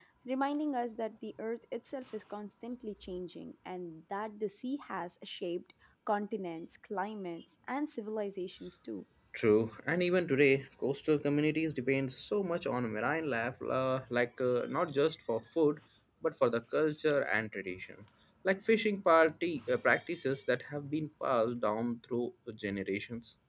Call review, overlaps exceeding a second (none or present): none